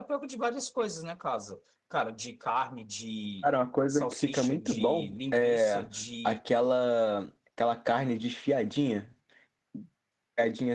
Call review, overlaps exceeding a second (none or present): present